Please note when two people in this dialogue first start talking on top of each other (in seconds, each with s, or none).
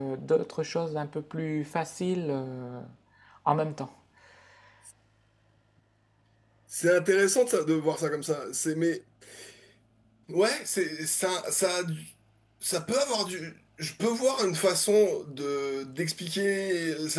none